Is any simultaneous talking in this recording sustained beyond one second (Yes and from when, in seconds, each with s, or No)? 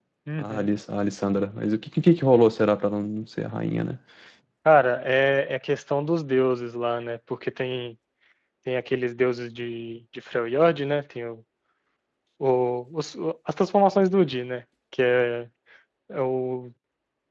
No